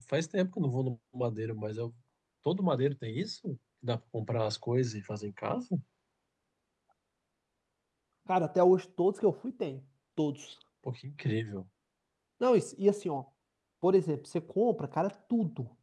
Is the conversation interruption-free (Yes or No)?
Yes